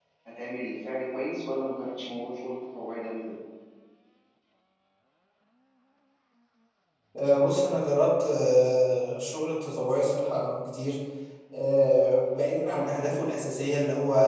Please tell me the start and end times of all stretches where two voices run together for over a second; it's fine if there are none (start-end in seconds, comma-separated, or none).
none